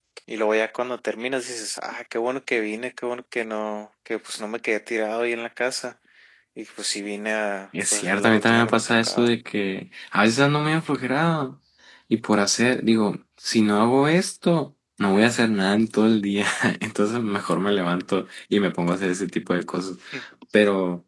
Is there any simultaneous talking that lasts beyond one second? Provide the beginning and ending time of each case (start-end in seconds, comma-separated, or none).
7.9-9.3